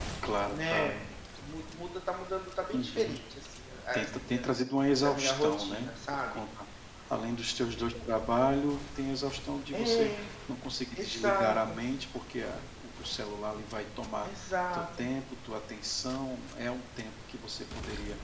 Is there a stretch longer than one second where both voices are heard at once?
Yes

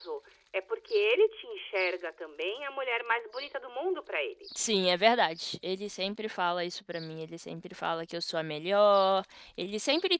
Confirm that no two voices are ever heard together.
Yes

